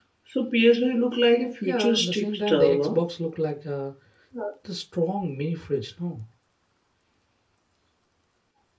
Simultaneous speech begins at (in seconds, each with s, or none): 1.6 s